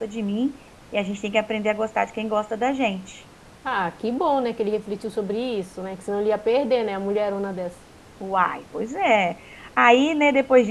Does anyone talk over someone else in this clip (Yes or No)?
No